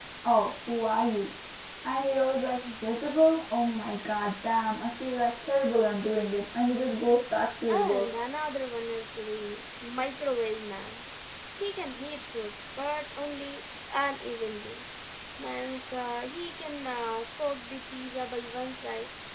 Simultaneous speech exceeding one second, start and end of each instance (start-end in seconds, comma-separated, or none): none